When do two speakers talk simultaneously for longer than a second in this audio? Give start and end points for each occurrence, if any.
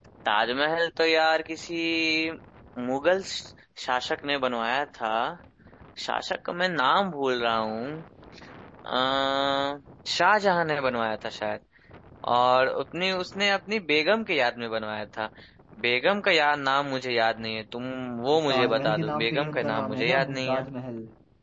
18.3-20.7

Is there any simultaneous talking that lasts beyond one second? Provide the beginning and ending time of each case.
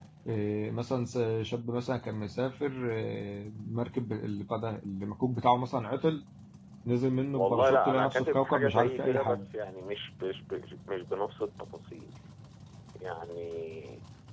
7.3-9.4

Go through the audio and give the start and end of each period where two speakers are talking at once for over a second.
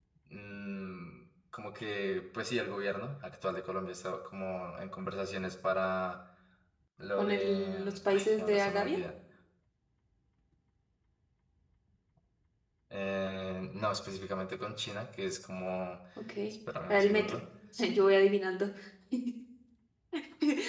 7.2-9.0

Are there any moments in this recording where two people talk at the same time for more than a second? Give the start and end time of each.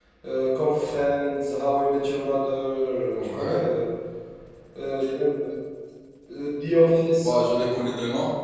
none

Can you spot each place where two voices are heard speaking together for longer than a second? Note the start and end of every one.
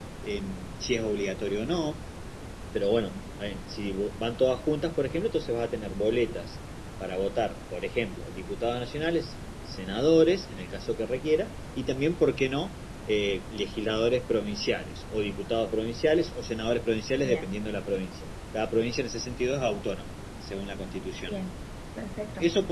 none

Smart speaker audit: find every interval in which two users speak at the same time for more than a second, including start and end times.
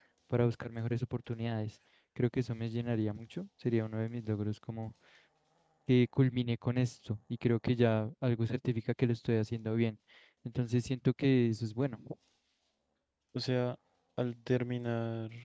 none

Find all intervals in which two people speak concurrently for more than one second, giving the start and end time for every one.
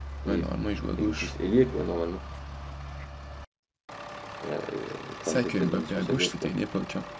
5.2-6.5

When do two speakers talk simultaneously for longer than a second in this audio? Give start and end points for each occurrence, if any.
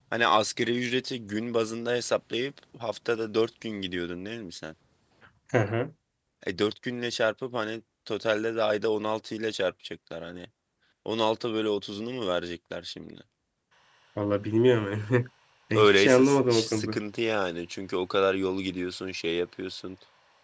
15.7-17.0

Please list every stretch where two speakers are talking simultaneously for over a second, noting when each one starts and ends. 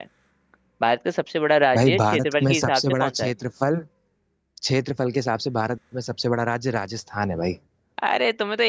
1.7-3.3

